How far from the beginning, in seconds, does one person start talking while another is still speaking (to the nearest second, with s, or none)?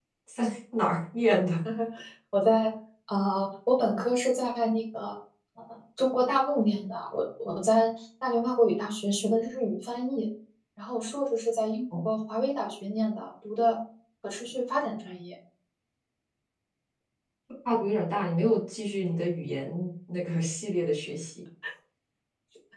none